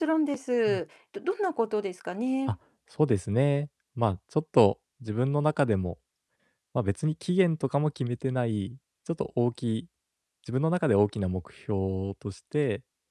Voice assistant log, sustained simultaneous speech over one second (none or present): none